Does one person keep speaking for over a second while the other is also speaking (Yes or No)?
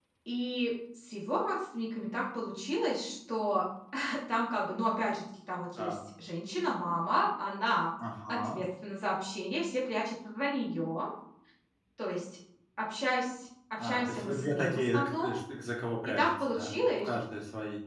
Yes